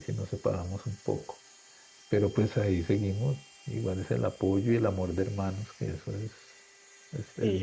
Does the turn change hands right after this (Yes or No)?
Yes